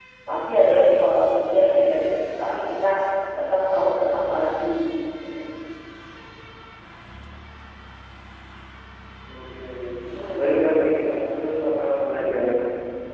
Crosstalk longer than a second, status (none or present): none